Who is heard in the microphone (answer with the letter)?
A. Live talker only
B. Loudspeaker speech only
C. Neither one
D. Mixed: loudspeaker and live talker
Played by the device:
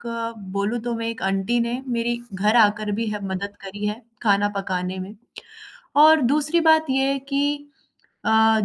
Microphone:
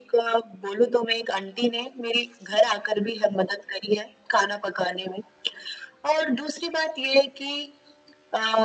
B